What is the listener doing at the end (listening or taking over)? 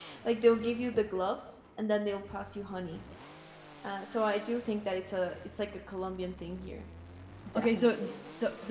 taking over